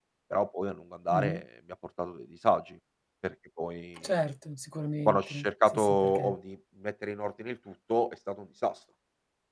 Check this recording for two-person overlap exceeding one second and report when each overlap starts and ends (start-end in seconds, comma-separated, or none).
5.0-6.4